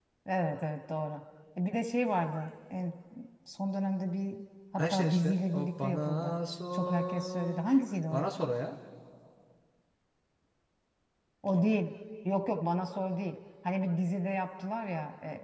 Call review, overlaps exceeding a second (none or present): present